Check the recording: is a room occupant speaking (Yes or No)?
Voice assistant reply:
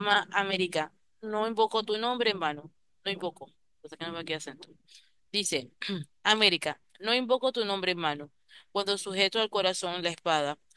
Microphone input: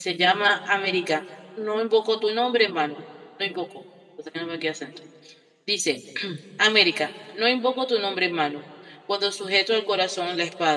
No